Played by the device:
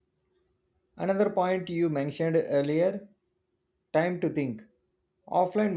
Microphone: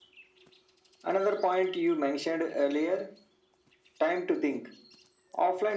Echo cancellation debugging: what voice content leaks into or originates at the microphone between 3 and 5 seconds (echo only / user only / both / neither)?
echo only